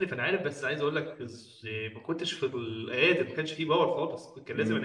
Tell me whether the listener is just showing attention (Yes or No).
Yes